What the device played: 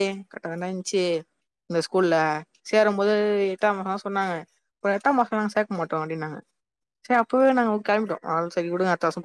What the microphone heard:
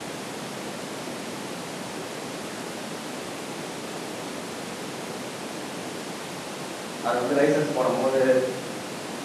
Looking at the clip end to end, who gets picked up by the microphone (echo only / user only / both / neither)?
user only